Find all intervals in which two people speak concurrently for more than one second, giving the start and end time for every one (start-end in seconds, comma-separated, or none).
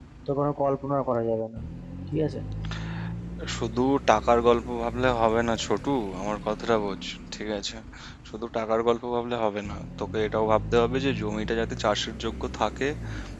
none